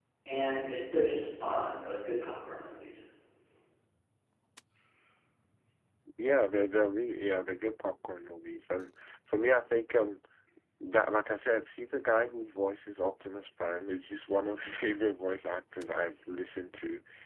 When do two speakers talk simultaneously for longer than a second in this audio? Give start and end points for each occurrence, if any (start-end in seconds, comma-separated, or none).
none